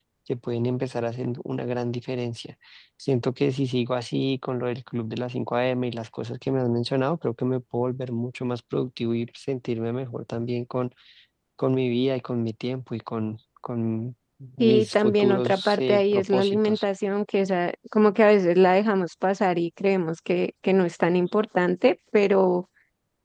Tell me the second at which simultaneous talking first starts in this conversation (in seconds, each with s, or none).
14.6 s